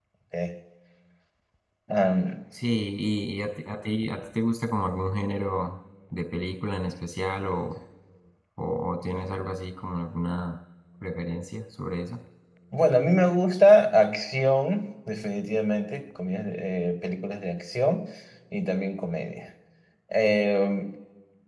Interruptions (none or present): none